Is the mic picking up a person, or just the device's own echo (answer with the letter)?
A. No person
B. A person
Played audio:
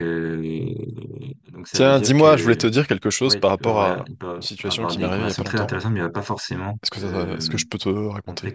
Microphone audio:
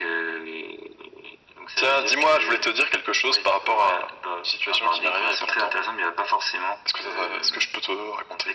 A